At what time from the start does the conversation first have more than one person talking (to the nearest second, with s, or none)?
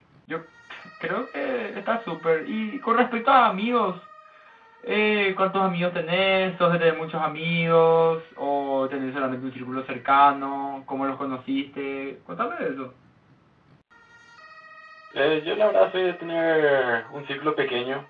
none